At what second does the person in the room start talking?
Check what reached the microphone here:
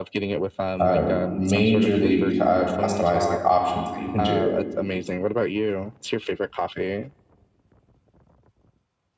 1 s

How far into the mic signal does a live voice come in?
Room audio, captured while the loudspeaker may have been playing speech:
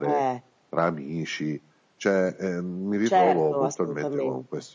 none

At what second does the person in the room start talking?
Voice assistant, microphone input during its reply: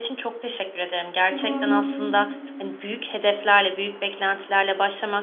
1 s

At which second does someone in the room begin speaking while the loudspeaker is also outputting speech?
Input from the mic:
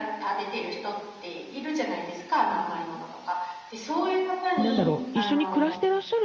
5 s

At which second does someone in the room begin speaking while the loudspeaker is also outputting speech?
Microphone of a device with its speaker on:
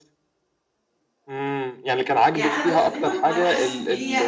2 s

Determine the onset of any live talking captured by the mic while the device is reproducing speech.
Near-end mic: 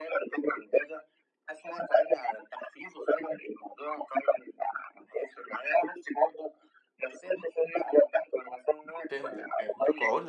9 s

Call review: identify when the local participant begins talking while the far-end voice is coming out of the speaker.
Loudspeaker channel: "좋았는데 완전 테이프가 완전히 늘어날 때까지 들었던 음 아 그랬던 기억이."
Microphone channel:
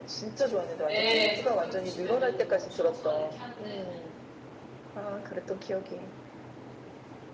1 s

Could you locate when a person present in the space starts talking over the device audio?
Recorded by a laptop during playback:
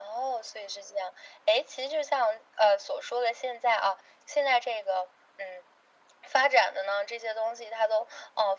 none

